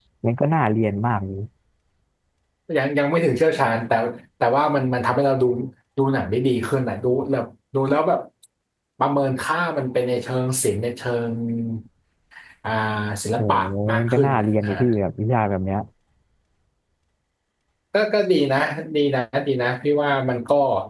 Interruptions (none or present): present